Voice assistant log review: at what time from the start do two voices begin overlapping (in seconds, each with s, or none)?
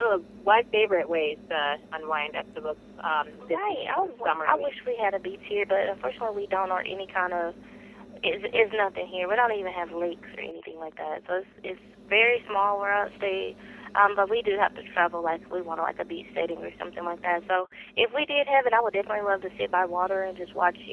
3.4 s